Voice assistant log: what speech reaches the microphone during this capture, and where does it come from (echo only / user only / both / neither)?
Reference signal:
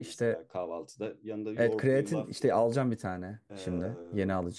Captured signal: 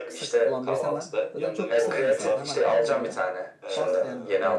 both